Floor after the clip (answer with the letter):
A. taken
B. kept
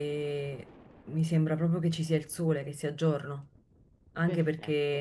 B